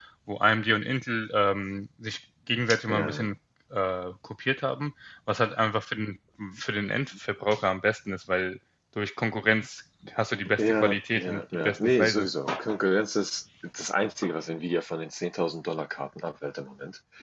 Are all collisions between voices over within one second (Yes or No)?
No